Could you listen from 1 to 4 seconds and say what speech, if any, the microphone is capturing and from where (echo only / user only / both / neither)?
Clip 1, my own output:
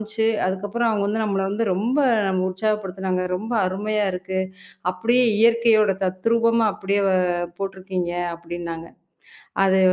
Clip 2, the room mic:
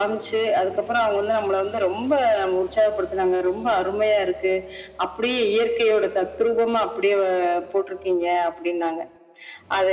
echo only